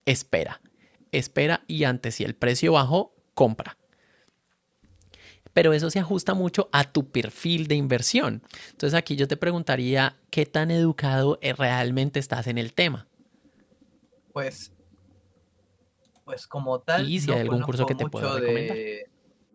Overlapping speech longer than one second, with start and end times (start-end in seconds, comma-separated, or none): 17.0-18.8